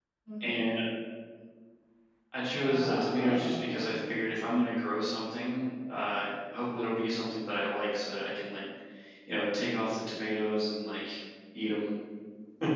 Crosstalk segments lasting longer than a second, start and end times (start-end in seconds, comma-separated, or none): 2.6-4.2